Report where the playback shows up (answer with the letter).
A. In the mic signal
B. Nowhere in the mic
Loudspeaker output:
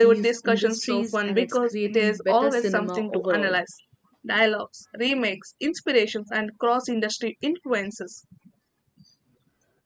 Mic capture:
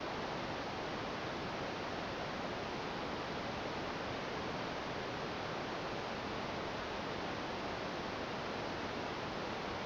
B